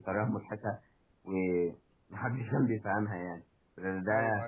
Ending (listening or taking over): listening